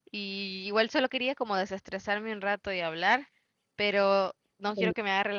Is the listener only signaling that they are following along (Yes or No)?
Yes